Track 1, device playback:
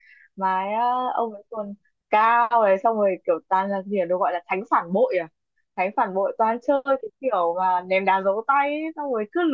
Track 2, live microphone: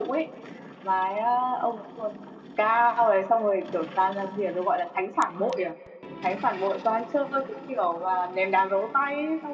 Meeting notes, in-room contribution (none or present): none